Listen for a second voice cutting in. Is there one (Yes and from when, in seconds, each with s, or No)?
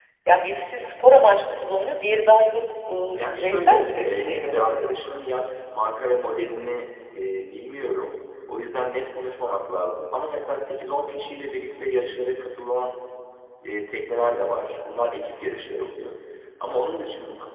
Yes, from 3.2 s